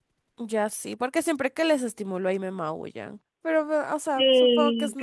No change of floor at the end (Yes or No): No